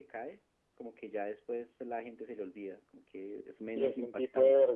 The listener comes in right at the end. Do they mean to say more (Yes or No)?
Yes